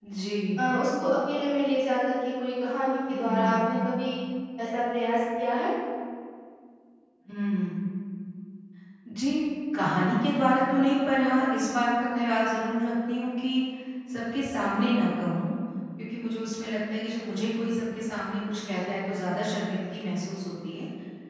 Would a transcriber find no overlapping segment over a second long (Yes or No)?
Yes